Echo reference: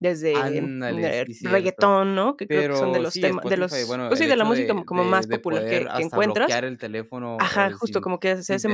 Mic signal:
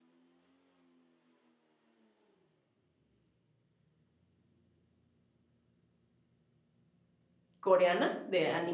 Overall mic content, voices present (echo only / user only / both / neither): user only